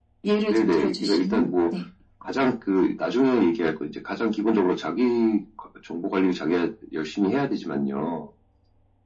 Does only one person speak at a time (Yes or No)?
No